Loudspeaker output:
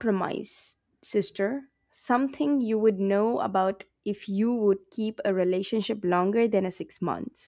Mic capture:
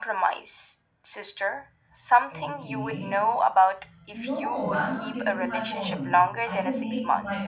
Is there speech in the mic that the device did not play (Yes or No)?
Yes